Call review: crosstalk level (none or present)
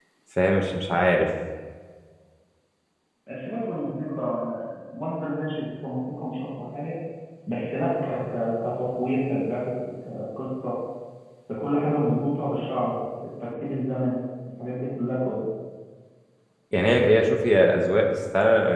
none